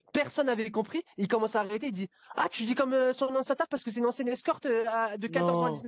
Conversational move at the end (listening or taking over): listening